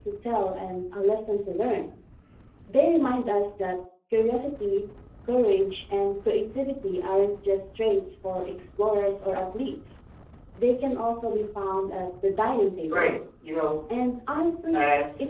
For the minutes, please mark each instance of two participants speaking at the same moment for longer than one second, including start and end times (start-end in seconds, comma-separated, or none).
none